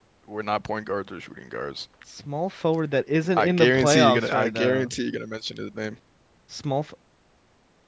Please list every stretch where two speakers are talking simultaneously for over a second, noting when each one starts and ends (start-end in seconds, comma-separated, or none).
3.3-4.9